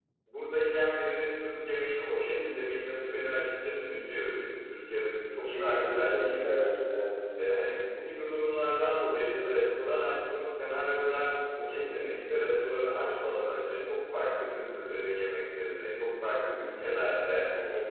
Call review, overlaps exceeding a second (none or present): present